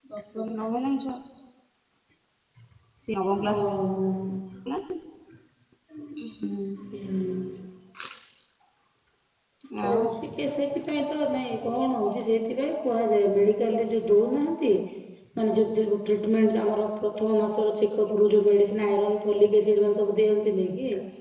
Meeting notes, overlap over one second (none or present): none